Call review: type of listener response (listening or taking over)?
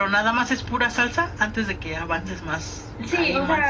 taking over